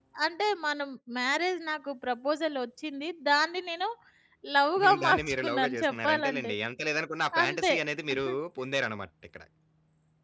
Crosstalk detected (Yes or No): Yes